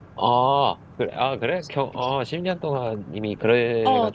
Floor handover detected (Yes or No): Yes